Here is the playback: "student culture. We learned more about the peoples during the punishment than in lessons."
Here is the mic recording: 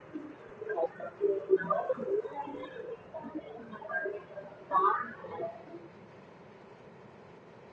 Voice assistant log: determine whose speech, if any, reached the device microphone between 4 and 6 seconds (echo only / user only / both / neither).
echo only